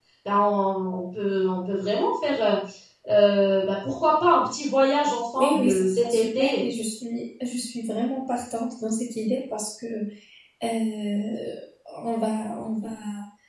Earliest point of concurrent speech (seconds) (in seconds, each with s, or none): 5.4 s